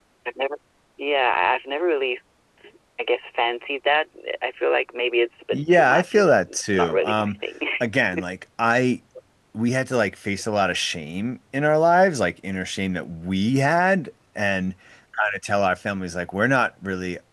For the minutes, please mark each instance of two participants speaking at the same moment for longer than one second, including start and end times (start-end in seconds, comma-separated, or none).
5.5-7.3